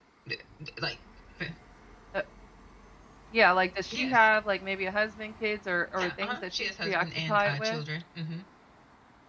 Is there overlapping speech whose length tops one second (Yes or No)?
Yes